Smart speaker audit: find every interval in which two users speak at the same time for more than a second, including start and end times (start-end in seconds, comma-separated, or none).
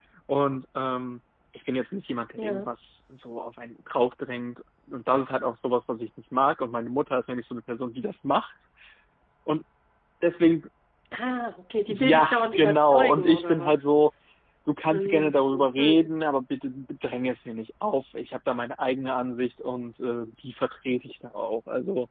11.9-13.9